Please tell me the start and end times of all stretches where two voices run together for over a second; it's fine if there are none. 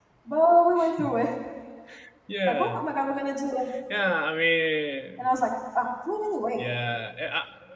none

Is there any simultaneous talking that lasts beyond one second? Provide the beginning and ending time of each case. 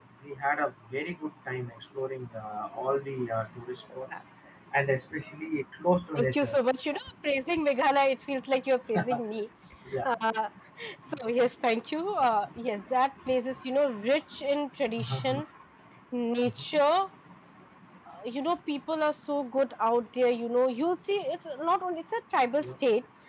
none

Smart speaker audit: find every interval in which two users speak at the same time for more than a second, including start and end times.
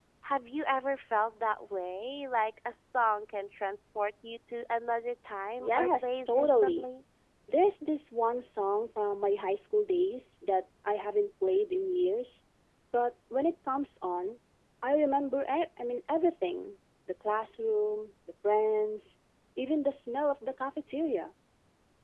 5.6-6.9

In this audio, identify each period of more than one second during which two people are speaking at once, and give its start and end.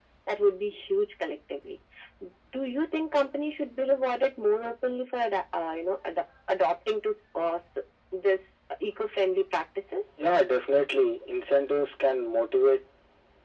none

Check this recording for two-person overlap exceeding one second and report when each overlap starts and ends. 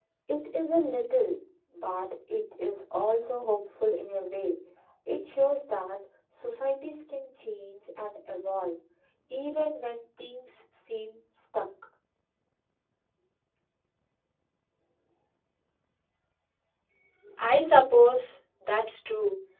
none

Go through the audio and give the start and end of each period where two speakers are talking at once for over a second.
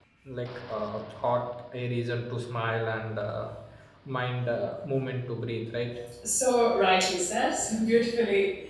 none

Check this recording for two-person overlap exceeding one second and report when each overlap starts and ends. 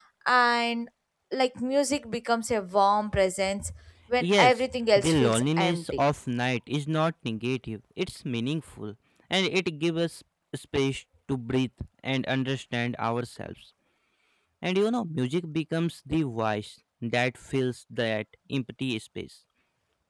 4.2-6.0

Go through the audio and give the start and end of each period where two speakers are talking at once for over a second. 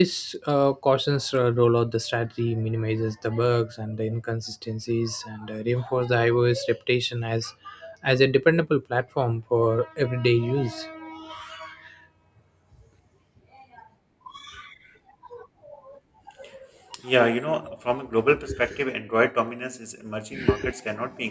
none

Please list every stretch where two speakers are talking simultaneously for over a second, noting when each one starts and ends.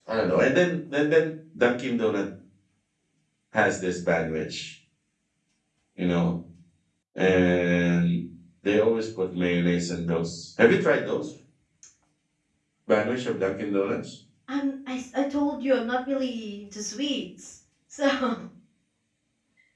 none

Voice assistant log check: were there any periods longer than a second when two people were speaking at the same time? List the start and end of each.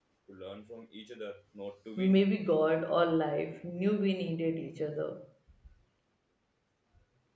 none

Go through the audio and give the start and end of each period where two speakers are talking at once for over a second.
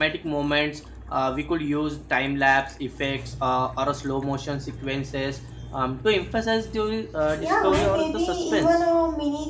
7.4-8.8

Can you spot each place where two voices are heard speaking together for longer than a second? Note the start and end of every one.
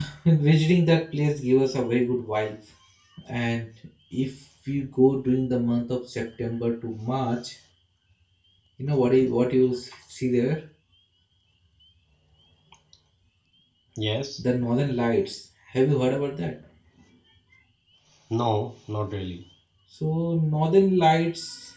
none

